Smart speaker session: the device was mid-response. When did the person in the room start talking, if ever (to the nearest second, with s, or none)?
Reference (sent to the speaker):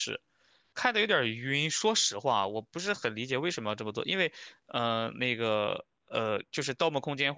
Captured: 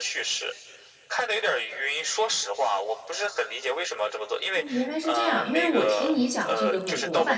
5 s